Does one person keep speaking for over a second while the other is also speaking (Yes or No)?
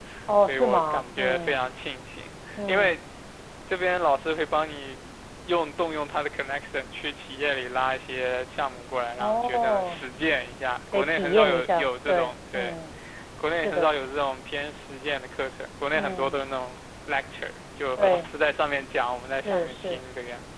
Yes